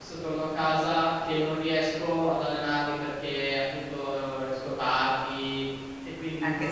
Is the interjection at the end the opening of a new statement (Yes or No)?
Yes